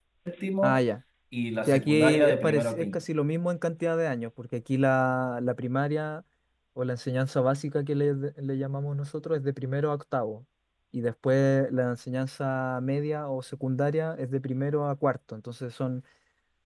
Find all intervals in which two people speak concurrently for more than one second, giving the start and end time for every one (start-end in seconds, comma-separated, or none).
1.7-3.0